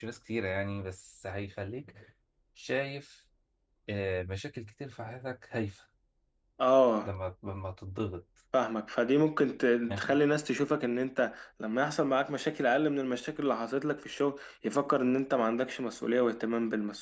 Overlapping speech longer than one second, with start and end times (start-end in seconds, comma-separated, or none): none